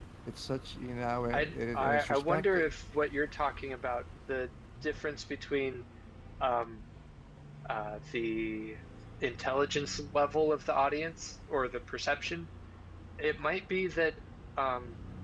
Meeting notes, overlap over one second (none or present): present